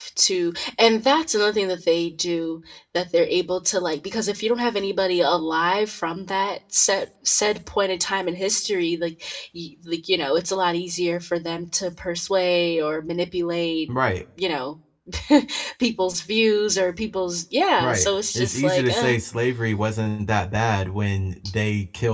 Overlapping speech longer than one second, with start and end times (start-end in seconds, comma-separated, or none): 17.8-19.1